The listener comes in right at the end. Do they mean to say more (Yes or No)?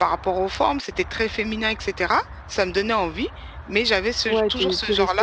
Yes